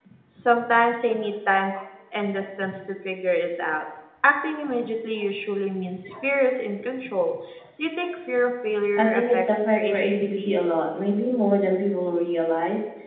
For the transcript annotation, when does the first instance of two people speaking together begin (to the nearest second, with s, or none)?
9 s